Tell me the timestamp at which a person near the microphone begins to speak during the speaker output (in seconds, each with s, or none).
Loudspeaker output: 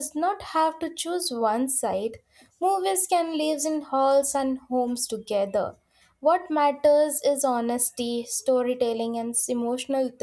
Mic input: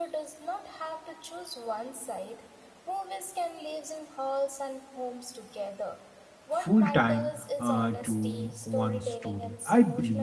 6.5 s